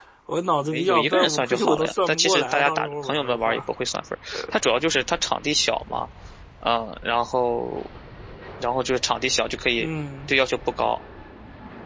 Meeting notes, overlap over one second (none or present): present